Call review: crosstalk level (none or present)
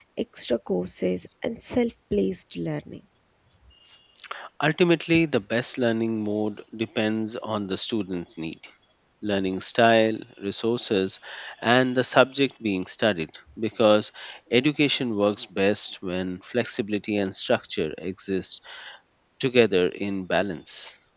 none